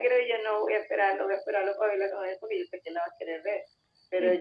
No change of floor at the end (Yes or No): Yes